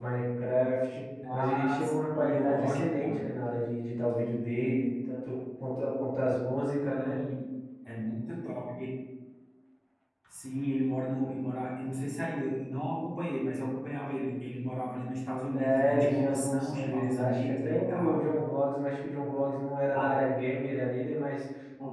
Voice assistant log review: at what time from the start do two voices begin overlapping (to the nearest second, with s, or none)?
1 s